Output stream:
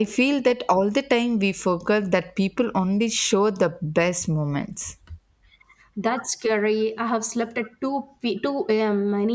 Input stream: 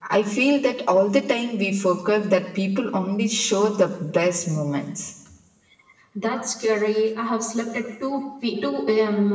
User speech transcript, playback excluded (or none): none